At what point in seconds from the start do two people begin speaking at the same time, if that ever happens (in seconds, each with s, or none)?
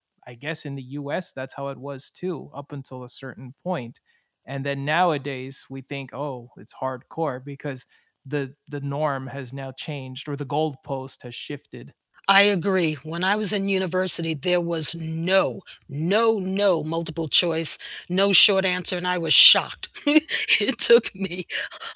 none